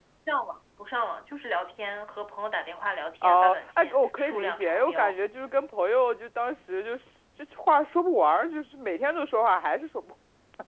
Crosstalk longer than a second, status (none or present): present